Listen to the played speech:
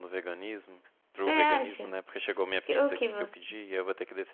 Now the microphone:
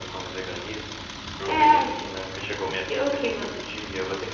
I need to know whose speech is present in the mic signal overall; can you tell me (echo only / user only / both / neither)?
echo only